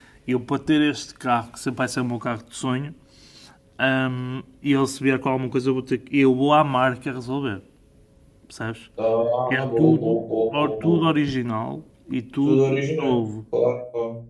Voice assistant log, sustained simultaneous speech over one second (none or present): present